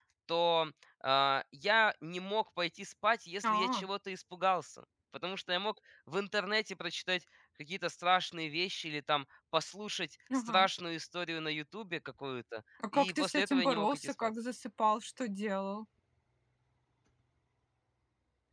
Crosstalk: present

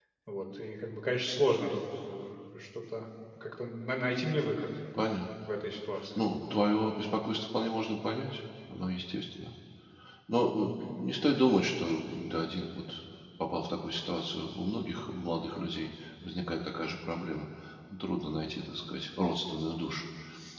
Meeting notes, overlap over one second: none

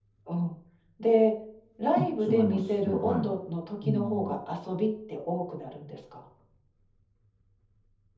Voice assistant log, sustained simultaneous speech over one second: present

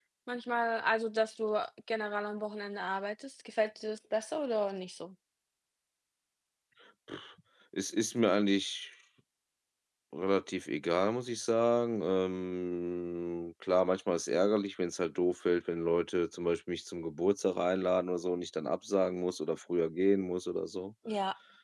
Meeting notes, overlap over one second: none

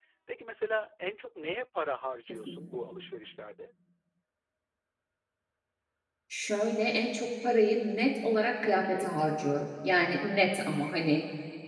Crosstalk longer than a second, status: none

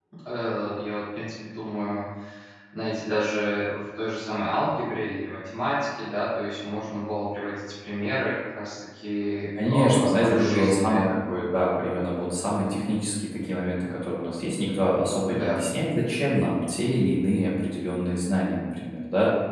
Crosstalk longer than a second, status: present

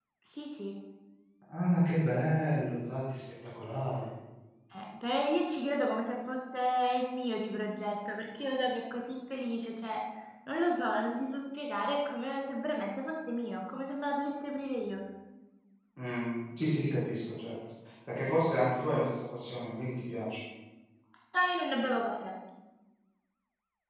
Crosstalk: none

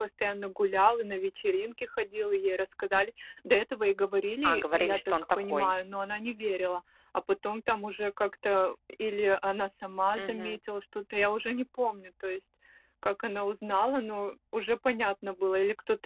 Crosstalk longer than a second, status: present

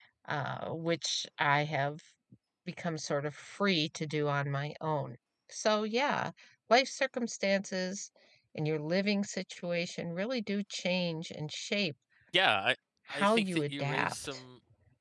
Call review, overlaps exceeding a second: present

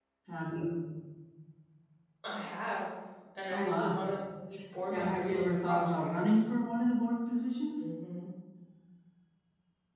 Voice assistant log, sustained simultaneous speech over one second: present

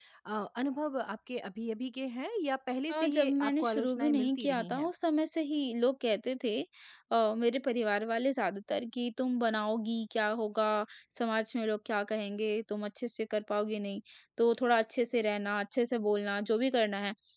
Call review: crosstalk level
present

